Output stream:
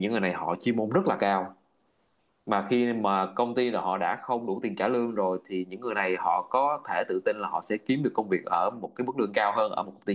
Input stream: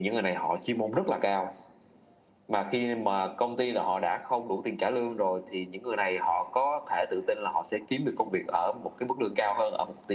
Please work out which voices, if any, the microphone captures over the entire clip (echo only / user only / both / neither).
echo only